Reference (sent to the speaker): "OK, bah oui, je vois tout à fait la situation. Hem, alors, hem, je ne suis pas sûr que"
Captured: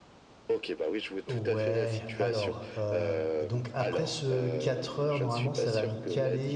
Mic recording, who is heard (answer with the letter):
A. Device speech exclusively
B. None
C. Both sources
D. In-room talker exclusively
C